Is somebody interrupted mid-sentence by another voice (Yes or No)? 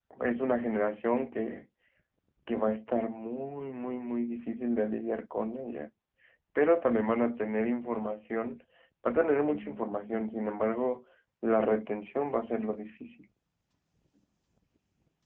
No